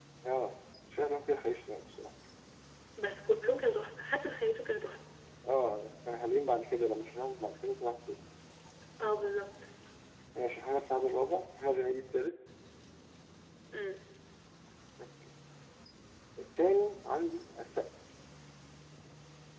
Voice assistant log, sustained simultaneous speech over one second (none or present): none